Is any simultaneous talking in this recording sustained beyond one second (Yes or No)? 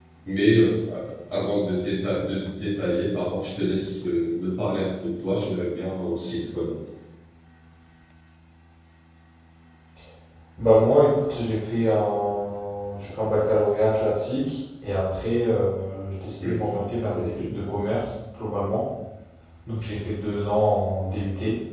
No